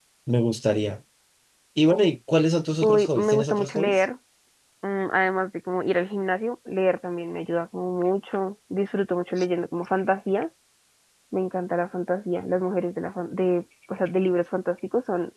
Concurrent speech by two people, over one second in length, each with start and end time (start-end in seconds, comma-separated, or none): 2.8-4.0